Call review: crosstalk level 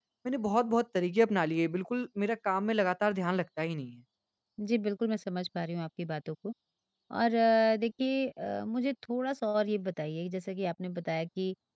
none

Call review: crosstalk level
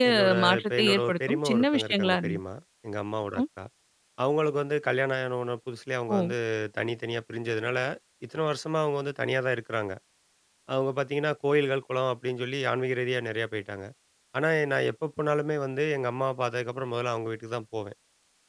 present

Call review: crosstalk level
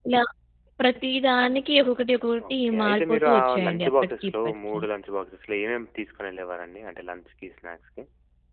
present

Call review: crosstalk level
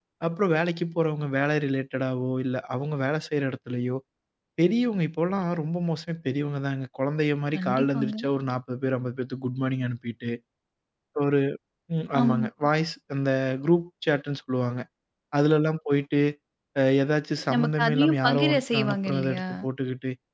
present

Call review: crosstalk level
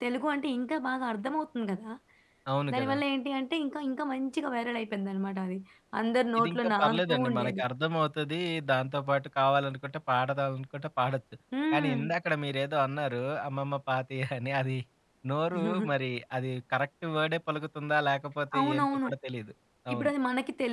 present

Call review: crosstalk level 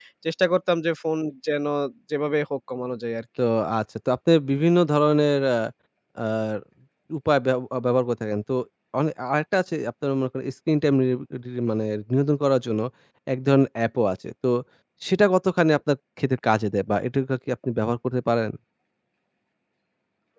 none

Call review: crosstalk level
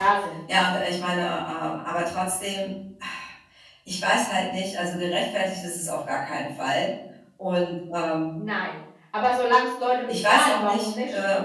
present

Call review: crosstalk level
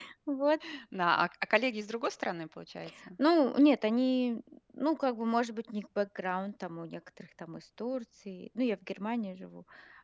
none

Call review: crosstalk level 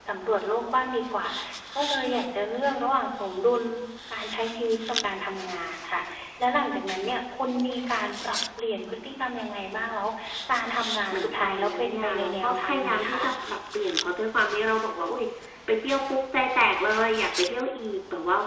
present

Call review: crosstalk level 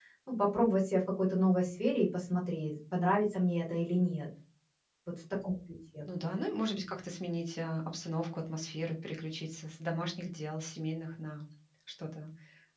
none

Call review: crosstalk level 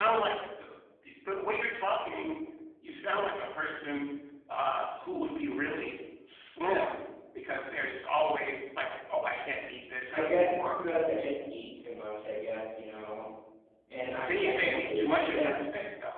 present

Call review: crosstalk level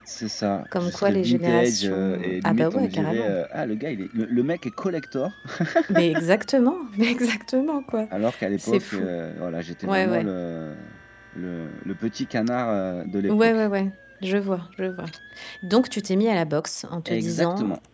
present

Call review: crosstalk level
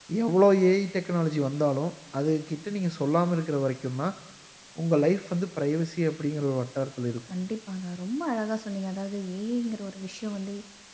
none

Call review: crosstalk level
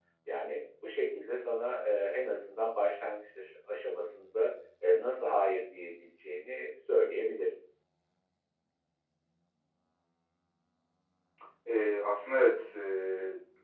none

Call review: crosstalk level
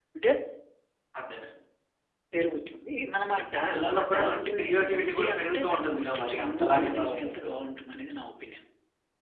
present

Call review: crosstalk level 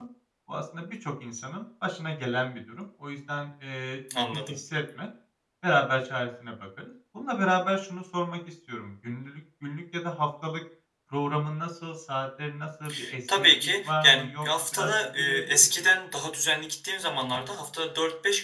present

